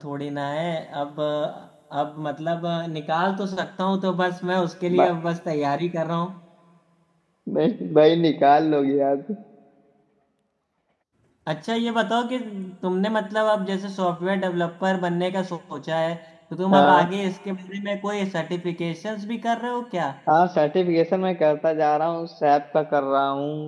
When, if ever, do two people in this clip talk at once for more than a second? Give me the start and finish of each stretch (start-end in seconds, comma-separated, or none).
none